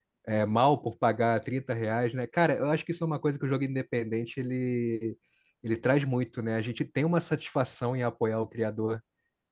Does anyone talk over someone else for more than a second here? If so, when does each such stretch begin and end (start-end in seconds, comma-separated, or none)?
none